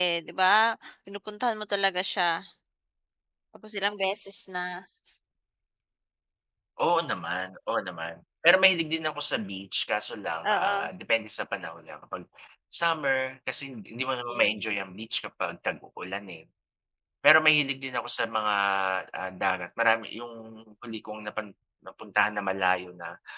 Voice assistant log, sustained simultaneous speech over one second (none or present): none